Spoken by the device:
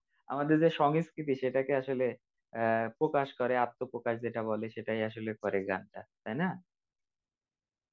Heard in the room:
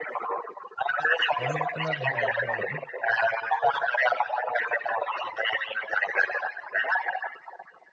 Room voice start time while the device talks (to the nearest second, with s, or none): 1 s